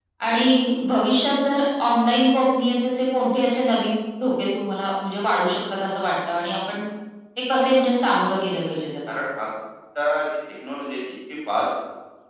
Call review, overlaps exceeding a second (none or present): none